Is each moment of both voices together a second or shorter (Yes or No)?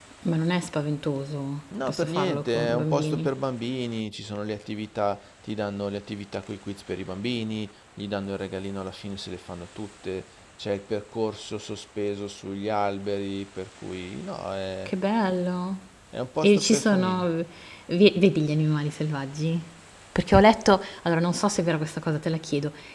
No